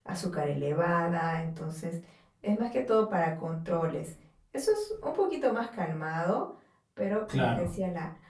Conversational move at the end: listening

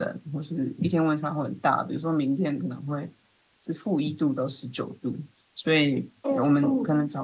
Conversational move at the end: listening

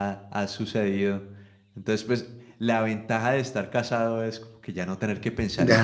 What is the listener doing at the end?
taking over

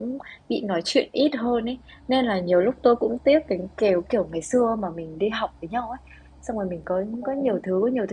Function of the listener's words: listening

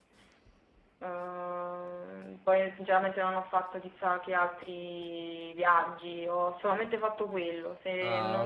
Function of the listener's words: listening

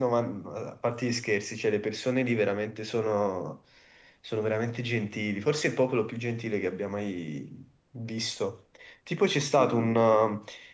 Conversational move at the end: listening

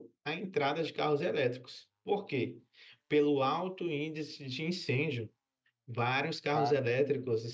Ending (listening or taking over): listening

